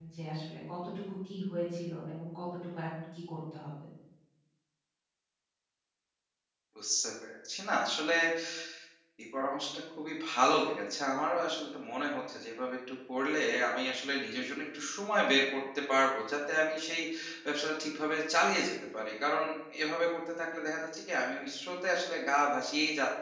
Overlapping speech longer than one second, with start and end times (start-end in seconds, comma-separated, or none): none